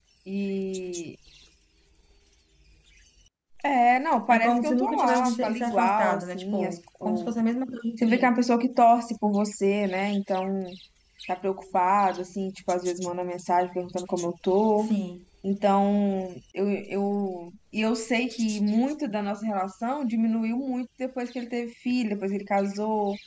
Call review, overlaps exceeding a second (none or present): present